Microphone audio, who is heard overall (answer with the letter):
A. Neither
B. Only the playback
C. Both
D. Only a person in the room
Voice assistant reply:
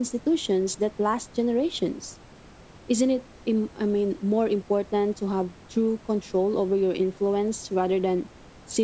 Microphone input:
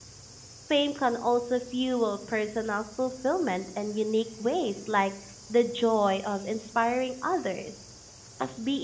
D